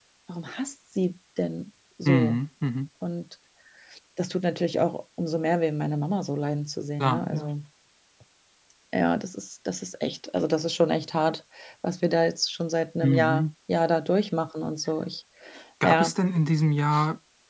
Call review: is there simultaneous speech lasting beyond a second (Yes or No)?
No